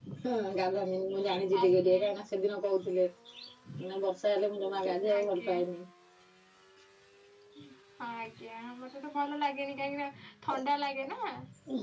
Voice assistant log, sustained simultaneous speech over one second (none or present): none